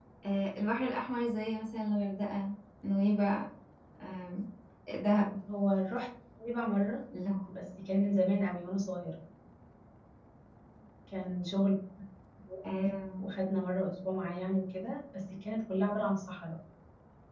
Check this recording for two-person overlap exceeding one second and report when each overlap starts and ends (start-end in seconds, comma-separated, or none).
none